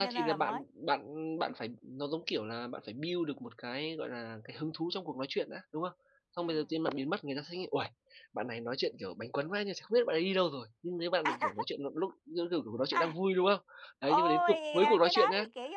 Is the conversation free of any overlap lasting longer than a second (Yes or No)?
No